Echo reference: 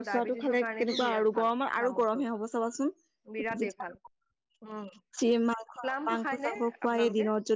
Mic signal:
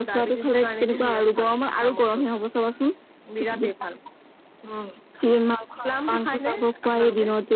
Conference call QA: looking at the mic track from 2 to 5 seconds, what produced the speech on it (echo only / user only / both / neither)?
echo only